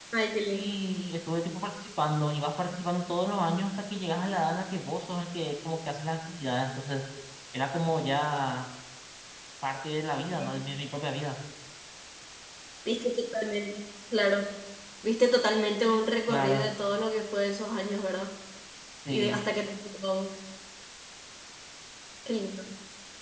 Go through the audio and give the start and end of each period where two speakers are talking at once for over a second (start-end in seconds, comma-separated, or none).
none